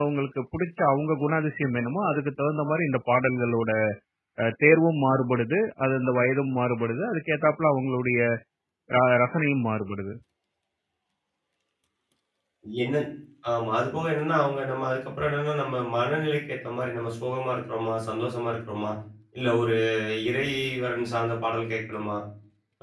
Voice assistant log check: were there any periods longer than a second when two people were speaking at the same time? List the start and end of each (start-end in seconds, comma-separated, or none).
none